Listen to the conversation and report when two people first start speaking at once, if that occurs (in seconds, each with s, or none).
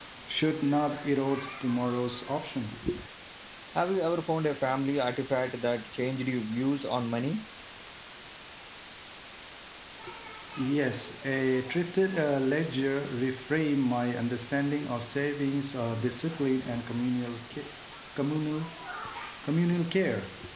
none